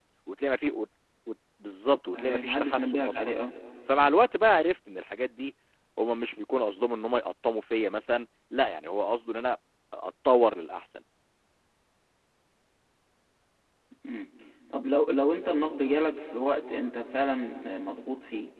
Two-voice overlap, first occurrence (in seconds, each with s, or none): 2.2 s